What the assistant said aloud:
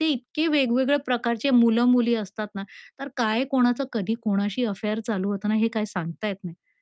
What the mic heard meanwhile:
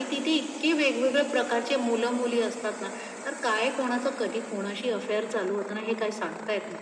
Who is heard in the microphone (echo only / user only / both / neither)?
echo only